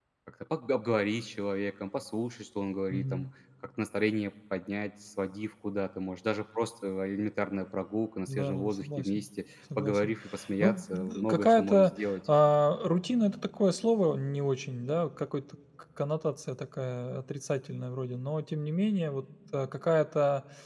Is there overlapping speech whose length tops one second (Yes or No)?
Yes